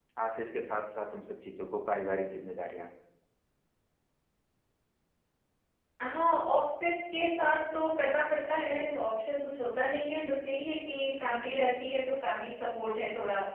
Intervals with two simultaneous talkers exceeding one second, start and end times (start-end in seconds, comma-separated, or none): none